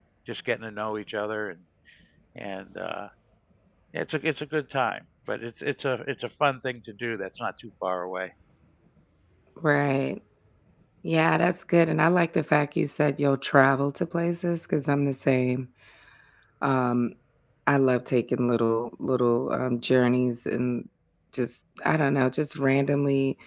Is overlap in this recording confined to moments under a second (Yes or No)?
Yes